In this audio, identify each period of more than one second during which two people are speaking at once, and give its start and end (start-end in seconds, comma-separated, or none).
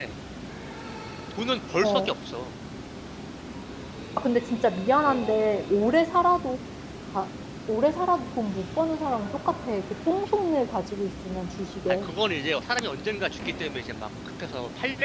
none